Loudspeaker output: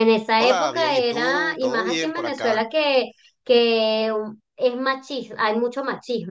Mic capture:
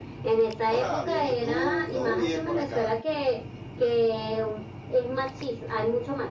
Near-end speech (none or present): none